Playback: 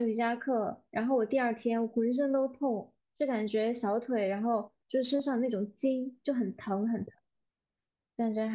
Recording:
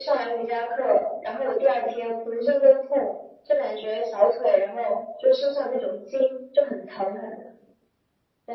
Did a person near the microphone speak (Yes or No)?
No